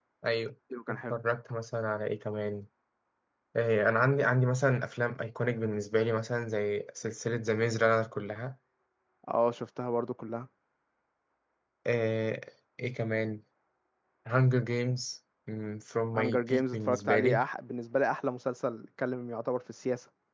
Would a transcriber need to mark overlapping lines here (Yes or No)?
Yes